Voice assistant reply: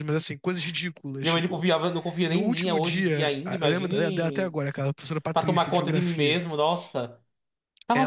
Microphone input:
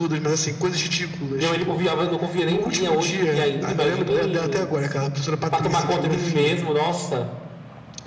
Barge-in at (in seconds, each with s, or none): none